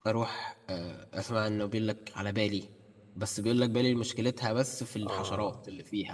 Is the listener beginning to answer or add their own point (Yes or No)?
Yes